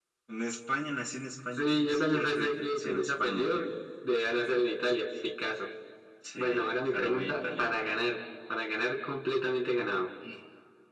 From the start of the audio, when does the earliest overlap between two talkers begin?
1.6 s

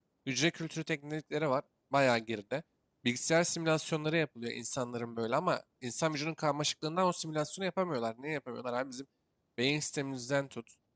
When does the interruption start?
none

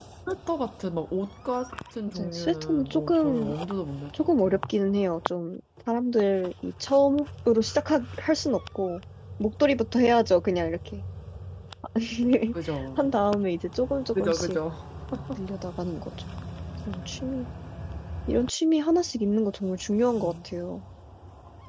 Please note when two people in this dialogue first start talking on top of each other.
2.1 s

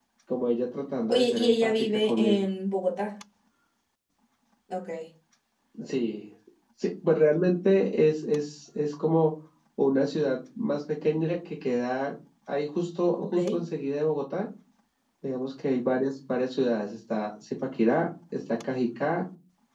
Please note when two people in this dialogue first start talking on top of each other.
1.0 s

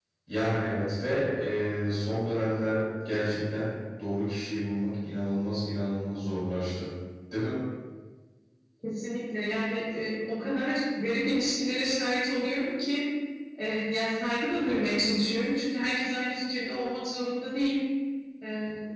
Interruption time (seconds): none

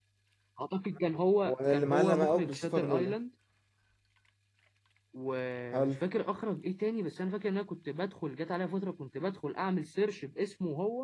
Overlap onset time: 1.5 s

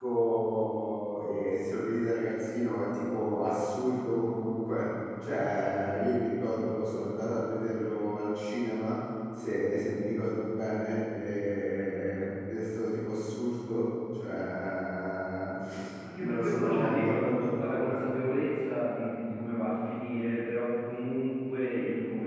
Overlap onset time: 16.2 s

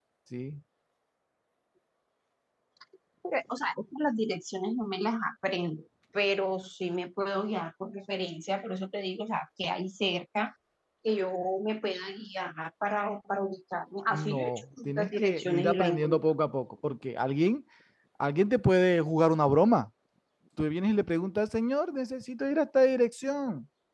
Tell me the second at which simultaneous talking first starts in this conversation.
14.1 s

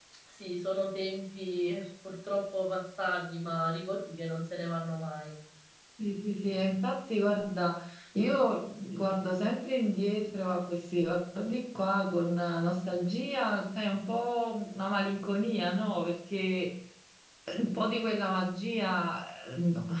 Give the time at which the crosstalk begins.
none

